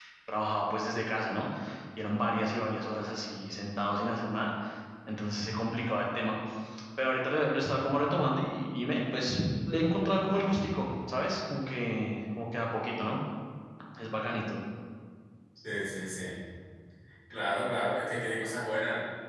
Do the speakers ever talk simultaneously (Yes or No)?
No